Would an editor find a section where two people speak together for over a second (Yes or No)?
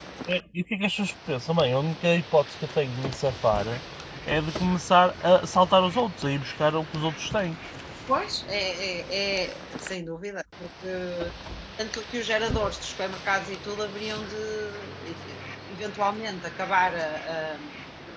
No